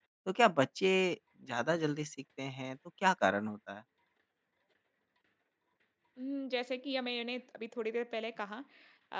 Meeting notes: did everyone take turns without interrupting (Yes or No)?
Yes